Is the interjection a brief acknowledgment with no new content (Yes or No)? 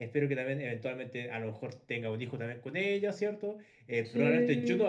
Yes